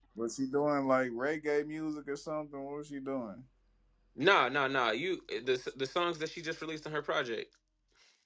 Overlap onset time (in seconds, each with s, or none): none